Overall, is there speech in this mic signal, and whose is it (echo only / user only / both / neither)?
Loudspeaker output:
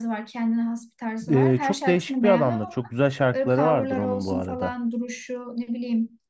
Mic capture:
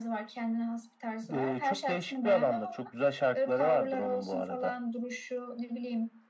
echo only